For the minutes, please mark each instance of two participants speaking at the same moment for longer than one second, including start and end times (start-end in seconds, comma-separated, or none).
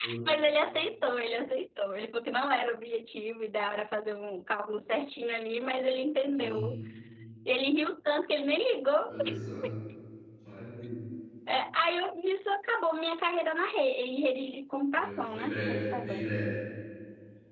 14.9-16.3